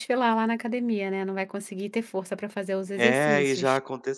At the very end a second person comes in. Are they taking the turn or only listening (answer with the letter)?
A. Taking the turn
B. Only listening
A